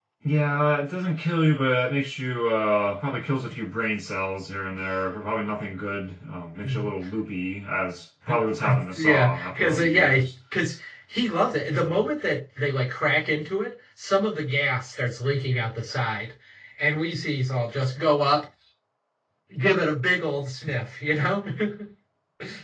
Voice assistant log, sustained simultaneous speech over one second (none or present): present